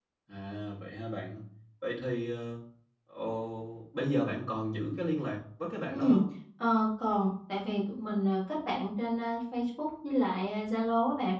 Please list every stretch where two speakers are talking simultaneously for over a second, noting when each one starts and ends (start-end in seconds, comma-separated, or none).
none